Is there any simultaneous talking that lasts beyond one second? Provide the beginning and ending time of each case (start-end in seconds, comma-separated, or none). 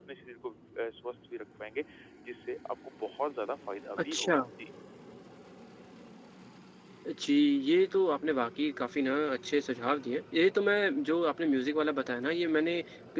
none